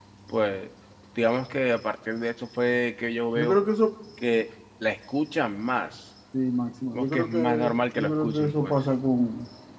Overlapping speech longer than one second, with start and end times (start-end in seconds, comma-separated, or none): 6.9-8.8